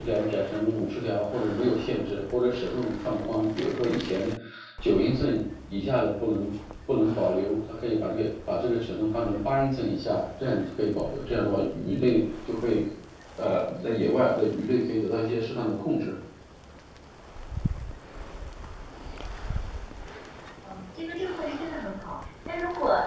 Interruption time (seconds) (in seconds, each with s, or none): none